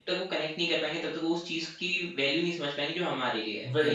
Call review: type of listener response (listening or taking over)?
taking over